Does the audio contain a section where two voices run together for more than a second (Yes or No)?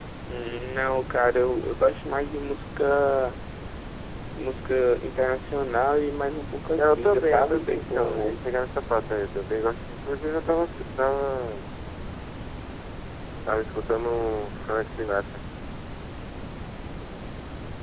Yes